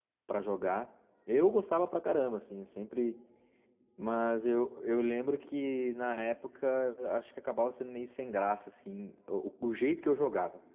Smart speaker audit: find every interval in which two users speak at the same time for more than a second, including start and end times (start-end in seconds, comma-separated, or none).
none